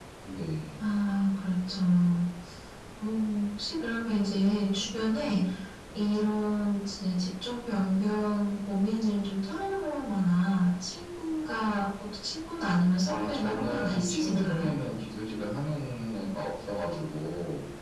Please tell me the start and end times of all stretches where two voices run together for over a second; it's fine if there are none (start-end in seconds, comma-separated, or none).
13.1-14.7